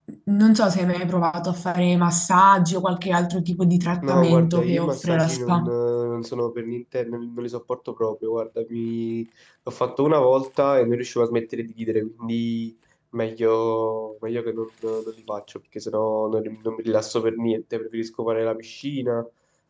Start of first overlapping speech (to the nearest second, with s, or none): 4 s